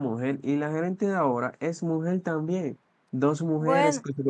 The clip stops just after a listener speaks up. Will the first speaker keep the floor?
Yes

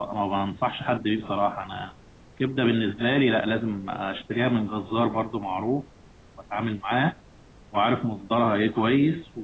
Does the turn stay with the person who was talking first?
Yes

